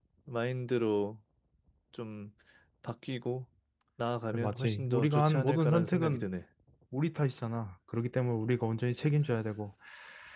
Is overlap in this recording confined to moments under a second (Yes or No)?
No